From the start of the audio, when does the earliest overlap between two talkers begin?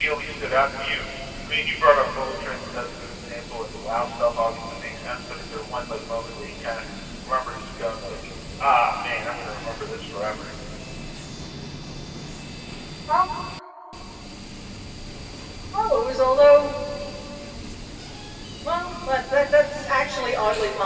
none

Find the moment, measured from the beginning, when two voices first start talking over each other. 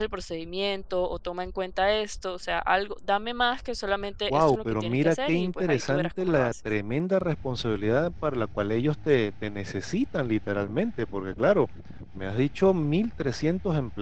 4.3 s

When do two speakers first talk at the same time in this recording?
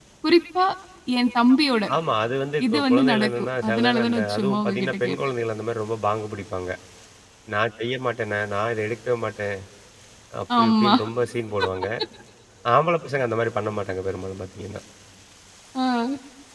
2.7 s

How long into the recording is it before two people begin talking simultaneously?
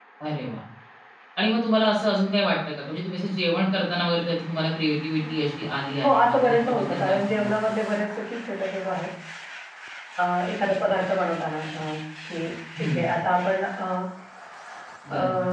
6.0 s

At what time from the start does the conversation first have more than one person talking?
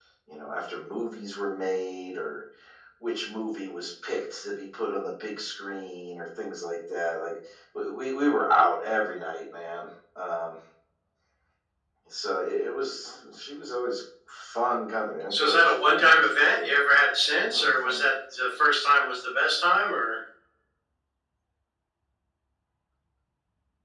15.3 s

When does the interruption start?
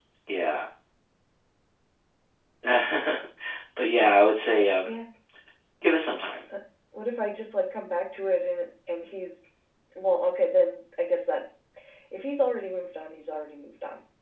none

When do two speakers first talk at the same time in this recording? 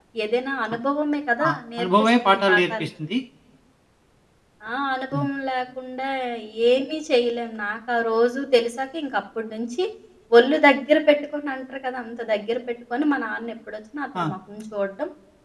1.5 s

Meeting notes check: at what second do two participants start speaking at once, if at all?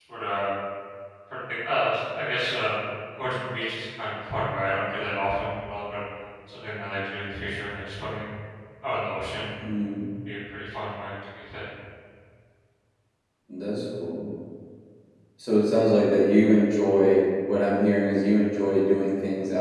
none

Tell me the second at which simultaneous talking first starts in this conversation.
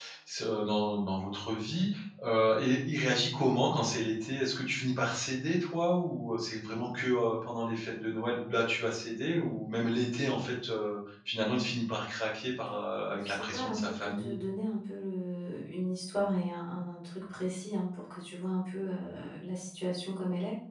13.1 s

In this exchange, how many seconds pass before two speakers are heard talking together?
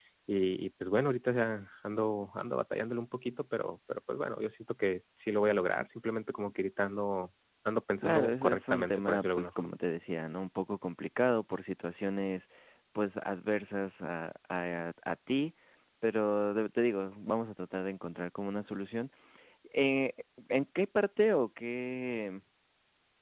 8.0 s

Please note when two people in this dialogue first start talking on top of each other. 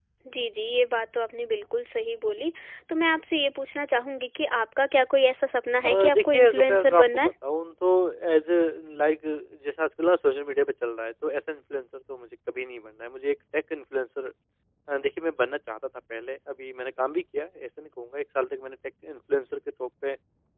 5.8 s

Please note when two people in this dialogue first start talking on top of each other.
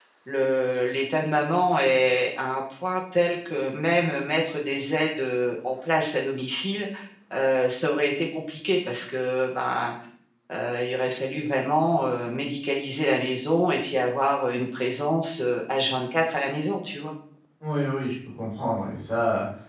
none

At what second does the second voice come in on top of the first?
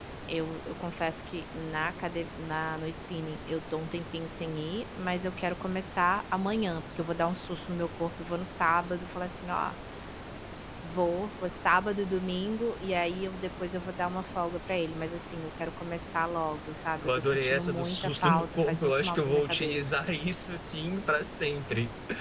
17.0 s

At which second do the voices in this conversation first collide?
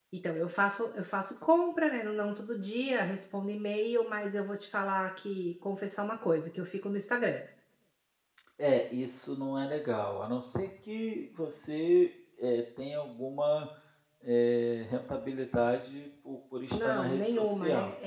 16.7 s

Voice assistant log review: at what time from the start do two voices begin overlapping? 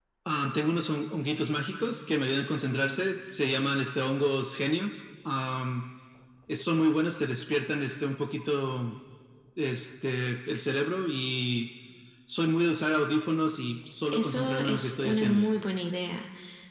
14.1 s

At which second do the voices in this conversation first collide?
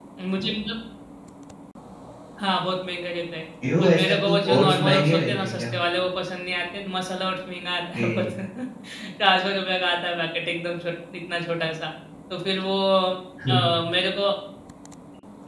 3.8 s

